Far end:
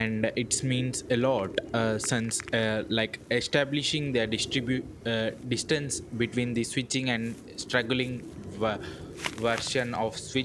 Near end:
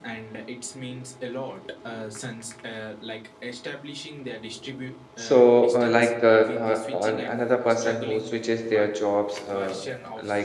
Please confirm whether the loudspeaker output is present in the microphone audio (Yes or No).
Yes